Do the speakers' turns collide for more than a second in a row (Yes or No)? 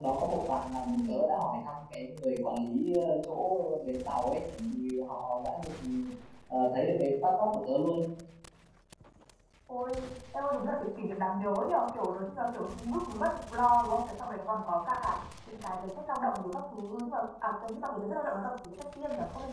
No